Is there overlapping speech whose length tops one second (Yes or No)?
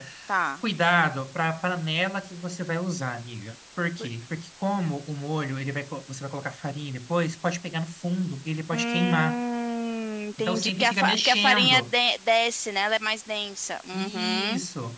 Yes